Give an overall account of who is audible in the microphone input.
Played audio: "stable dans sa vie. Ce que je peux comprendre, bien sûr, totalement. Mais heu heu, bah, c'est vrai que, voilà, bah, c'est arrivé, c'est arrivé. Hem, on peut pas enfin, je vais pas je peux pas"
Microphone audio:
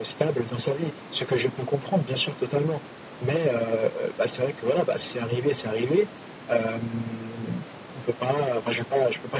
echo only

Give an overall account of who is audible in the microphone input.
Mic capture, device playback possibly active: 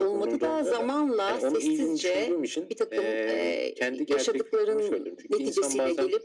echo only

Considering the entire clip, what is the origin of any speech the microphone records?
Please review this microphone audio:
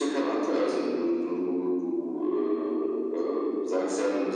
echo only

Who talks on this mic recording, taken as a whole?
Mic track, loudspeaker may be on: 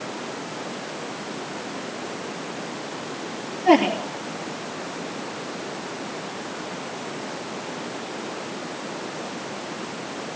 user only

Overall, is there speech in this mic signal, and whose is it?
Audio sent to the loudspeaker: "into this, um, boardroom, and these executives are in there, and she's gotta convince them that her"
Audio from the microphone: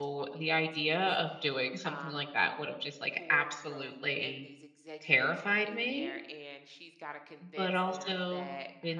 both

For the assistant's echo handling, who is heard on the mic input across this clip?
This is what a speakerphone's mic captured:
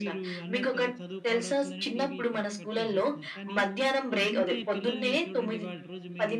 both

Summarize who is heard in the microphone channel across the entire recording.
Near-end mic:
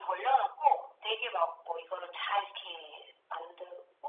echo only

